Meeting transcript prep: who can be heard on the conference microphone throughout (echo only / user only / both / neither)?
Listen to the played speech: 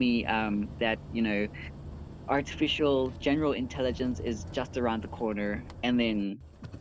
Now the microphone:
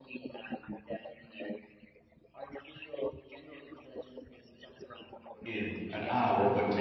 both